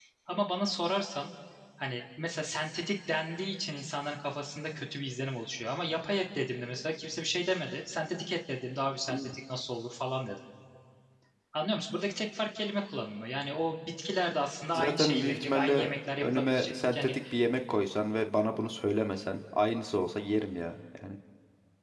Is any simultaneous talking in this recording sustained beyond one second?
Yes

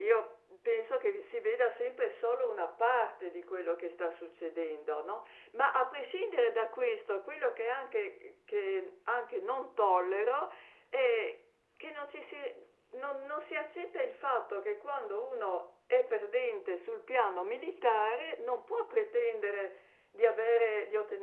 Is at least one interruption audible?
No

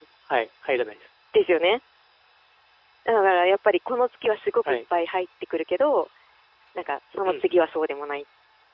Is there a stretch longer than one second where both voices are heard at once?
No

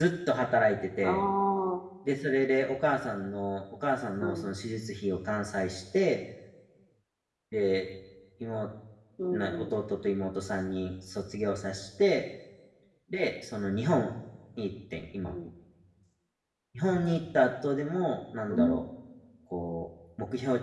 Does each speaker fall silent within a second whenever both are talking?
Yes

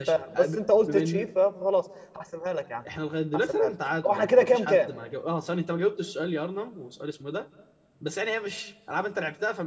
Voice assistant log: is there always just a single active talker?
No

